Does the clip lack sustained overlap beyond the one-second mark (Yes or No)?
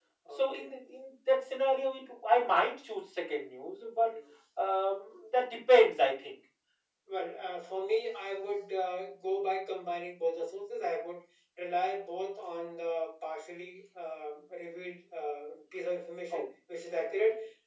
Yes